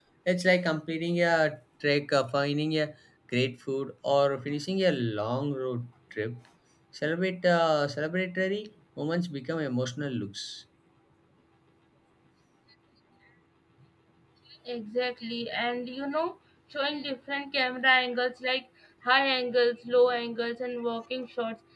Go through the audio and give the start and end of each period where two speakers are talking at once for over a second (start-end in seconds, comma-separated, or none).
none